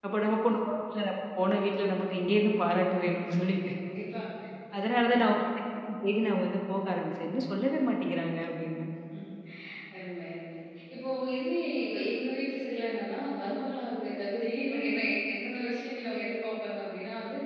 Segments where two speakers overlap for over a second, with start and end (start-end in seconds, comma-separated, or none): none